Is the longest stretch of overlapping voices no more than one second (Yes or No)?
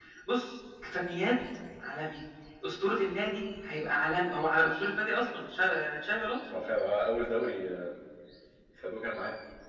Yes